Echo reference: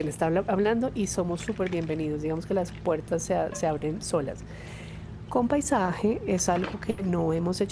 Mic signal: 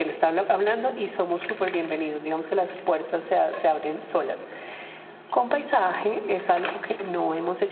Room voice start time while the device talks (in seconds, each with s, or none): none